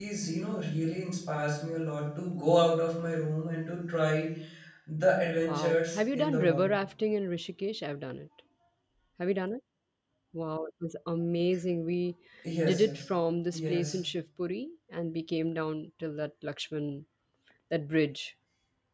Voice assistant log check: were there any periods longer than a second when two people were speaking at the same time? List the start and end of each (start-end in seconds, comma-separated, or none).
5.4-6.7